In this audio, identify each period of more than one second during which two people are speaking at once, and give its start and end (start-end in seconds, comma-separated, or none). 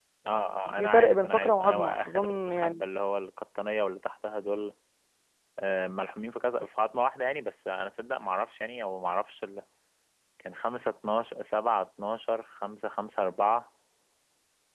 0.8-2.9